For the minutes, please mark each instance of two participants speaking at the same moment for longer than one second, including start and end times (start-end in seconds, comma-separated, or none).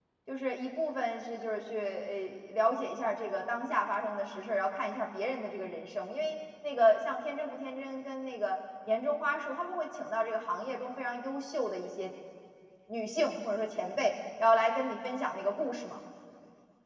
none